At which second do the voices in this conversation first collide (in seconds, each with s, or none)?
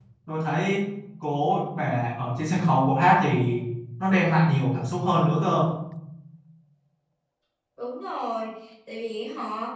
none